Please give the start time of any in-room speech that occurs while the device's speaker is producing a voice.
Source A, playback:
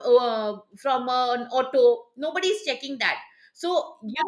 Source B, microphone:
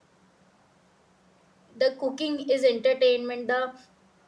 2 s

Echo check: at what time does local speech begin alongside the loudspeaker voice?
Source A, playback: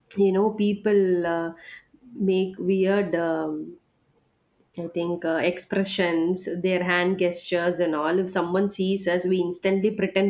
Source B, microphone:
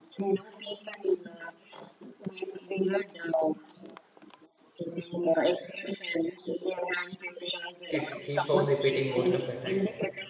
8 s

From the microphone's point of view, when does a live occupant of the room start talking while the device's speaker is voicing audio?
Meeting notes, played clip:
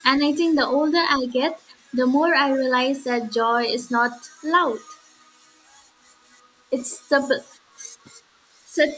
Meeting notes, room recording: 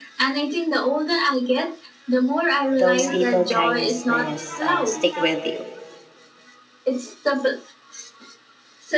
3 s

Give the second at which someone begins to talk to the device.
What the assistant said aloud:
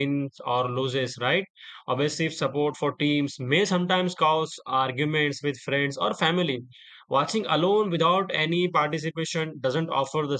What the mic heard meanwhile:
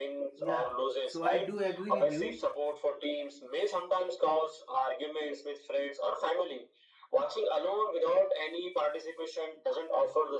0 s

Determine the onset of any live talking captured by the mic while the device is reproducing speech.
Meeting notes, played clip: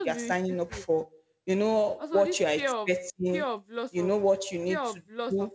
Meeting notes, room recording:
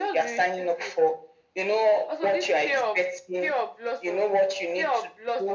none

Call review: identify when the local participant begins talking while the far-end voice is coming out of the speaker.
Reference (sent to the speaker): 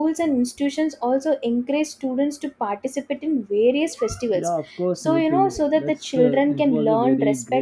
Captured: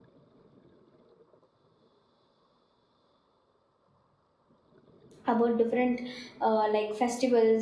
5 s

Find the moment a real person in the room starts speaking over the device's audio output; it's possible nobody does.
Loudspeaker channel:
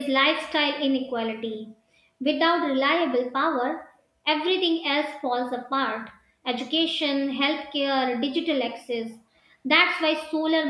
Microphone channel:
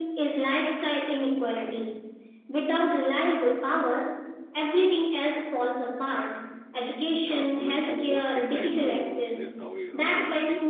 7 s

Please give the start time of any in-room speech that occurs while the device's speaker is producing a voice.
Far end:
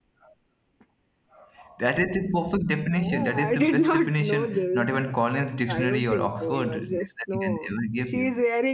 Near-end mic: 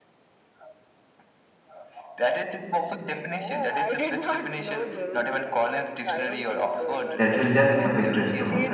7 s

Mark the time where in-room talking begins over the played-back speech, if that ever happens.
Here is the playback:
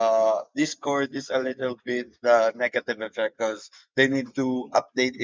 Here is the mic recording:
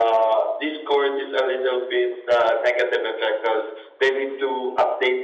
none

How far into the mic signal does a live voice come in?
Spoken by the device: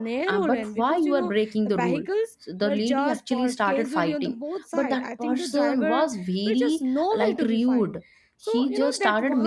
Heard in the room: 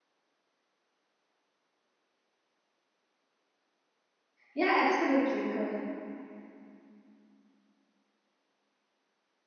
5 s

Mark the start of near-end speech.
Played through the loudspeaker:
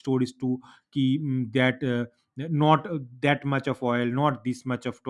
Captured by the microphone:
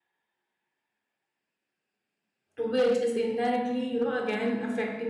3 s

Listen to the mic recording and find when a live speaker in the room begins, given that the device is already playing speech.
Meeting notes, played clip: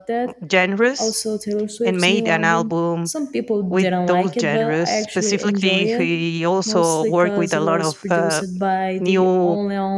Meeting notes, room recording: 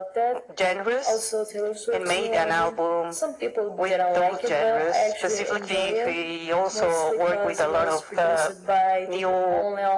none

